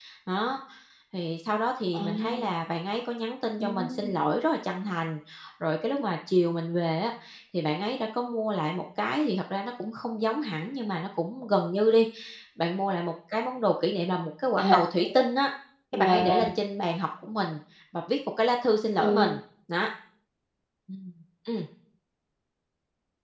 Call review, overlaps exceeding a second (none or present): none